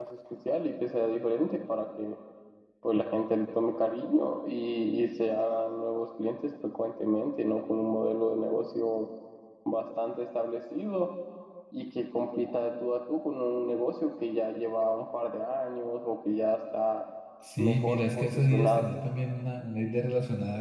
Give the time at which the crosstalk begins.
18 s

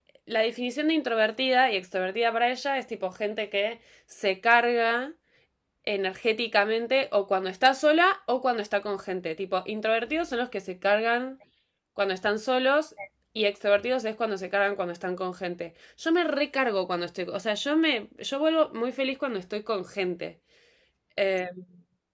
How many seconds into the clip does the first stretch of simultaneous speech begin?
none

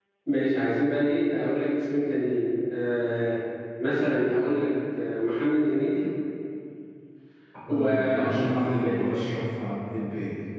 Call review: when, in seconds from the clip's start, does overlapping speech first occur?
8 s

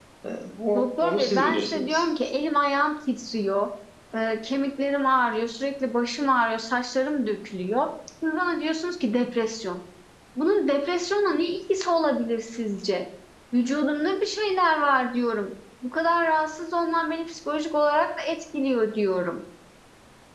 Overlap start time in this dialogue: 1 s

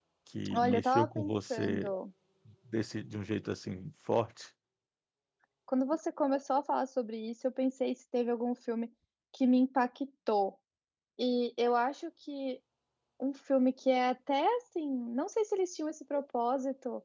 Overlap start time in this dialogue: 1 s

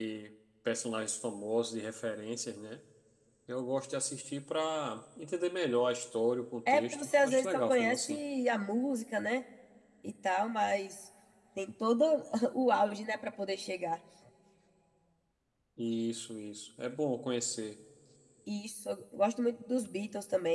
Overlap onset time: 7 s

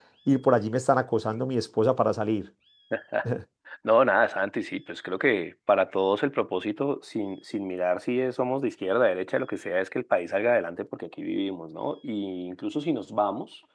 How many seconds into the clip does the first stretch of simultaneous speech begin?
none

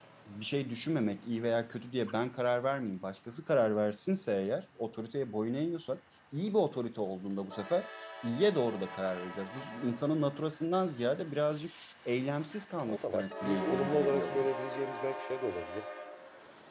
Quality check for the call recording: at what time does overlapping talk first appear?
13 s

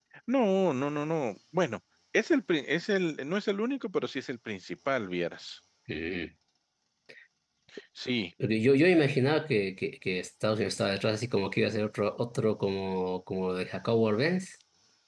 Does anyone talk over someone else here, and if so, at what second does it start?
none

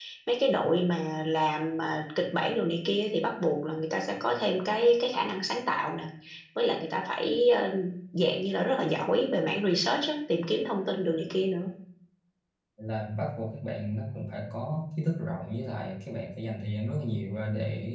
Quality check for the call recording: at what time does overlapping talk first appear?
none

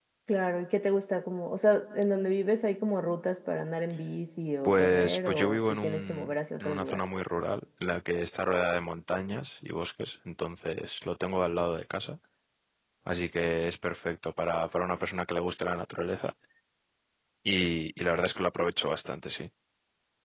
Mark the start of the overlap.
5 s

